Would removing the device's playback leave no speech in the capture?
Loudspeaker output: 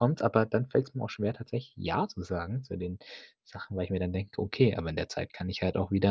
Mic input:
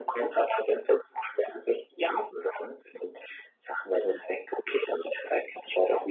Yes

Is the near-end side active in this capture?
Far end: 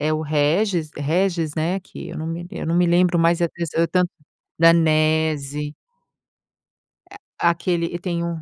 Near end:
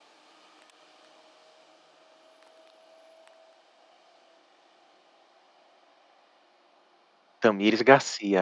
Yes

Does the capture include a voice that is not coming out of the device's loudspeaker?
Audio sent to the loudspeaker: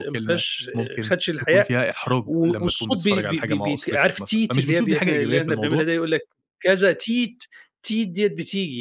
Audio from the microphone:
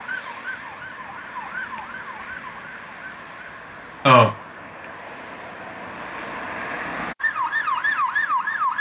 Yes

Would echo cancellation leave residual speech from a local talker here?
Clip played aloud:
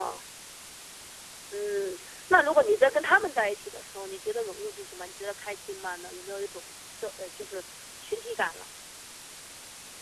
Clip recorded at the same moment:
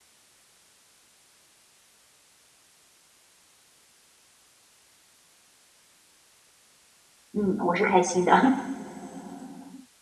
Yes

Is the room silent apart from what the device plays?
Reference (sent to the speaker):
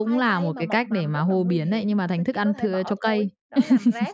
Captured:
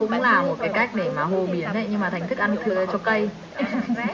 No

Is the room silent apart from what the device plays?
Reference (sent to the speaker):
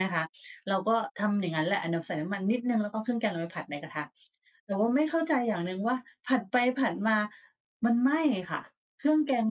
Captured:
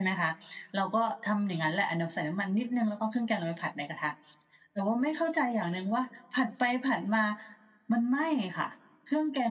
Yes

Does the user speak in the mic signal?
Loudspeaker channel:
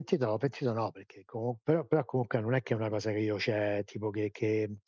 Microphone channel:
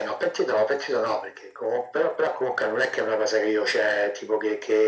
No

